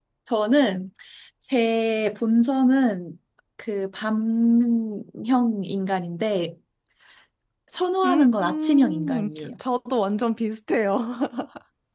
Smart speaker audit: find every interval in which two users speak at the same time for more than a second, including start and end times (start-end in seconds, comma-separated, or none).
8.0-9.5